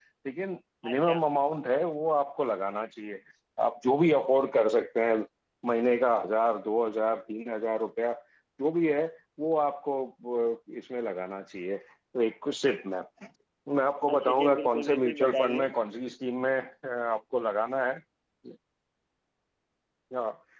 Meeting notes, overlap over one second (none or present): present